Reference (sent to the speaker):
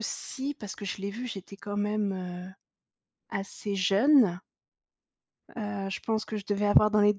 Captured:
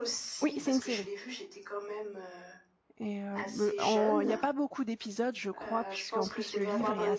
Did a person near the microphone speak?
Yes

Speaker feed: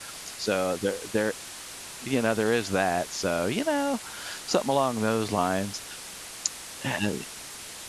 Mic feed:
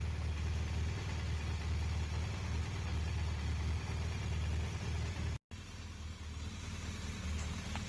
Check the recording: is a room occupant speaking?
No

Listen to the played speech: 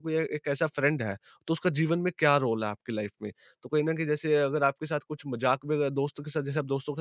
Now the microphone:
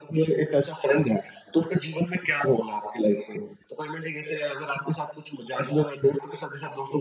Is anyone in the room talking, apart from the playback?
No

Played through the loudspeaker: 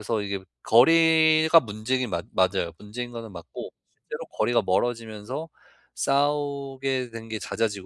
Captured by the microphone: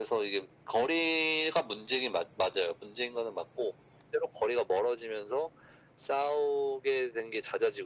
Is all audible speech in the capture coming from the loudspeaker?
Yes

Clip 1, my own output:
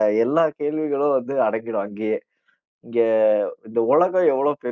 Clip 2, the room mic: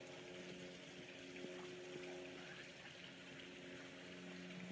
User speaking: No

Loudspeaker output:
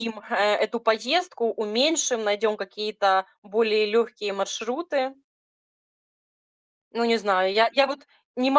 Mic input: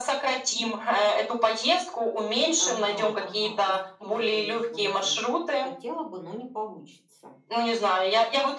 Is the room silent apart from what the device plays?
No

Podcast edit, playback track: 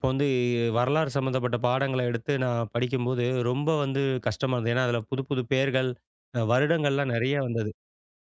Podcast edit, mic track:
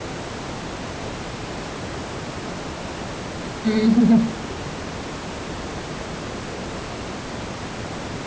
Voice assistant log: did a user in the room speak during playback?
Yes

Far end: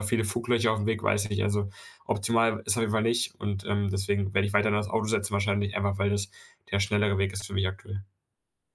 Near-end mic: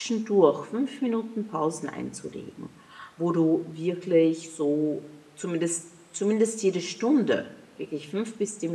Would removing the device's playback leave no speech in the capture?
No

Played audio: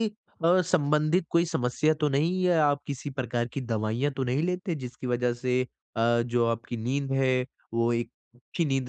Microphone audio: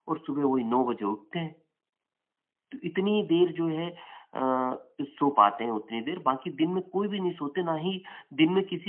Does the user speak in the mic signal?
Yes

